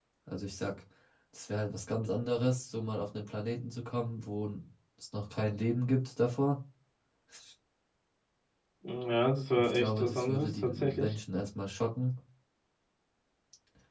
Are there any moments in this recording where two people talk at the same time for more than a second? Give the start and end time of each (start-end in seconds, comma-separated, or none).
9.6-11.1